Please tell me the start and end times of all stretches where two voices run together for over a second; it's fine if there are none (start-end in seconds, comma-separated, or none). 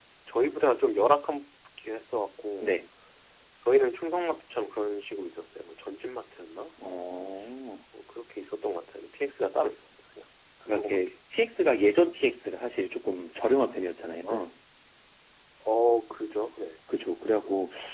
none